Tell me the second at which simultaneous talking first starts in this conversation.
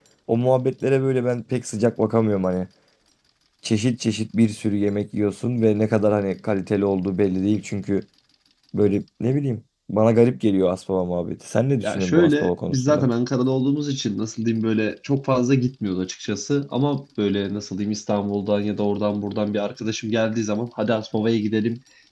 11.8 s

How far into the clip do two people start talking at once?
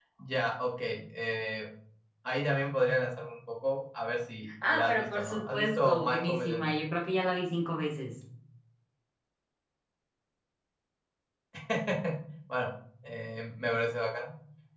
4.6 s

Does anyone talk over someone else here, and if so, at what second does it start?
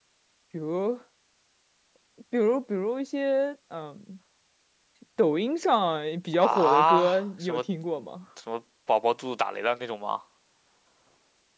6.3 s

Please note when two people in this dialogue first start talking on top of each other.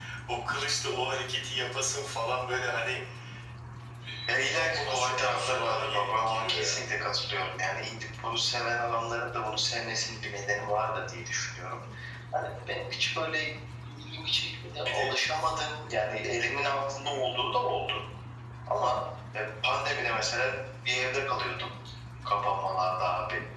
4.5 s

